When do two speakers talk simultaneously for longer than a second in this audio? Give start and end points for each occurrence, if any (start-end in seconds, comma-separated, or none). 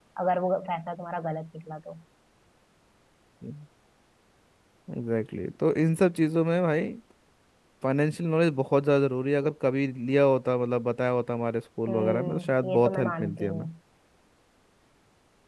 11.9-13.7